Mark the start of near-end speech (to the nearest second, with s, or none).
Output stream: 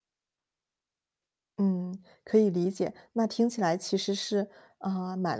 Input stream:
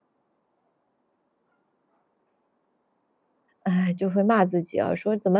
4 s